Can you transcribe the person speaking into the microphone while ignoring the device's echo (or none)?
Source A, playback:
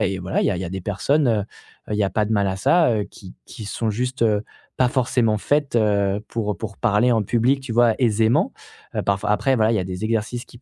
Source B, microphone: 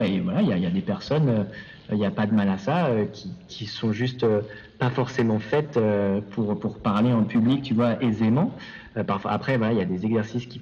none